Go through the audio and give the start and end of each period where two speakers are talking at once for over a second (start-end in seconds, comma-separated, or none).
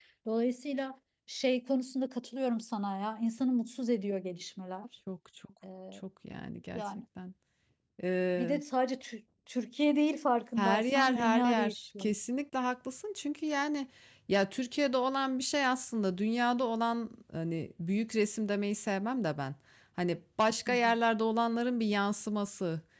10.6-12.1